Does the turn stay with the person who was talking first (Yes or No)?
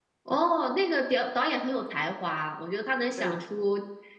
Yes